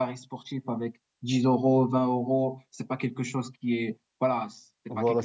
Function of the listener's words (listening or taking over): taking over